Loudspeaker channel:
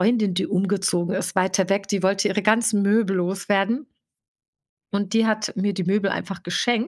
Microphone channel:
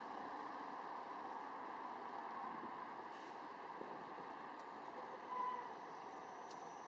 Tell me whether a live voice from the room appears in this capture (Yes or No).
No